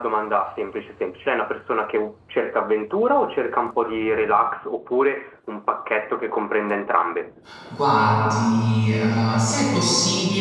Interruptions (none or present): none